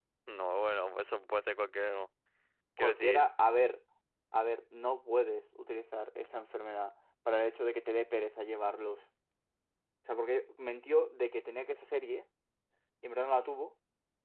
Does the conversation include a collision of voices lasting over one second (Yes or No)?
No